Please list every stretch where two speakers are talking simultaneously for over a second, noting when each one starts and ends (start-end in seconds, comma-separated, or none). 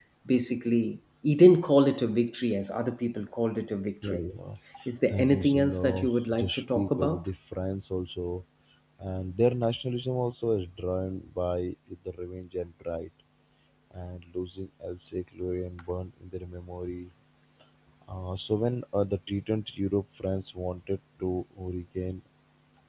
5.1-7.2